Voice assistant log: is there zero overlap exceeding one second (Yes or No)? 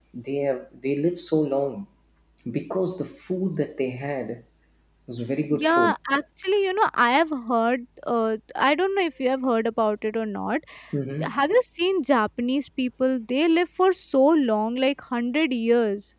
Yes